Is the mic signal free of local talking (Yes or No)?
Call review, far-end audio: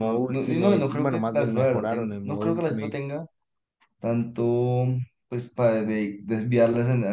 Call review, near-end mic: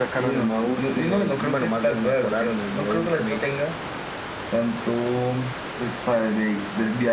Yes